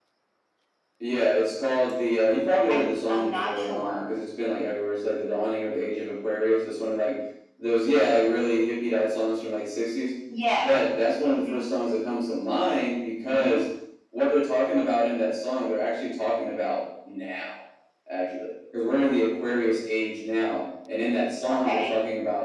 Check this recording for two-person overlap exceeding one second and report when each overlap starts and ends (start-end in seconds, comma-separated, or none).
2.7-4.1